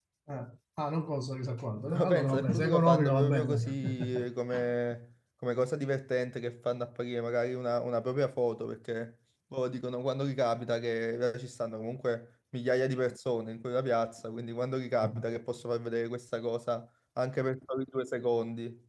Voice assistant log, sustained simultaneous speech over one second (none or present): present